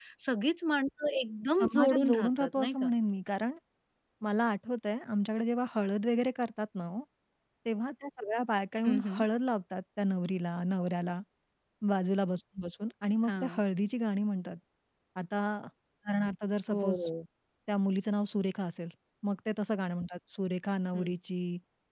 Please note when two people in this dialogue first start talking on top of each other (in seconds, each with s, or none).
1.6 s